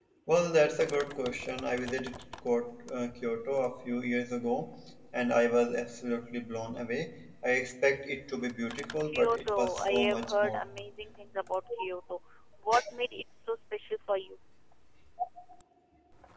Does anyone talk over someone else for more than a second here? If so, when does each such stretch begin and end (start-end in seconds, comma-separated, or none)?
9.1-10.7